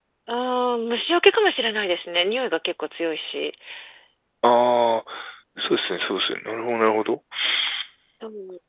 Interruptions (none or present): none